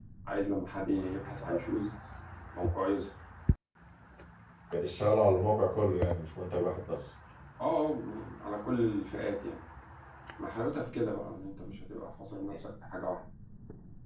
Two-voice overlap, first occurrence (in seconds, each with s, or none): none